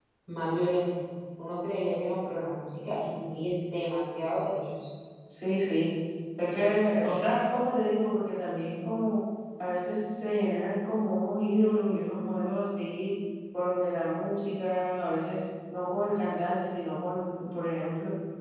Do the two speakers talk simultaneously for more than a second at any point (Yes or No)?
No